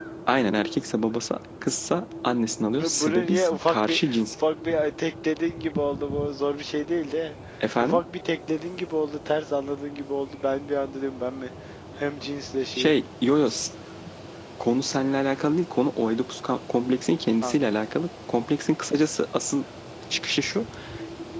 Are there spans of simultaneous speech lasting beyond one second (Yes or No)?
Yes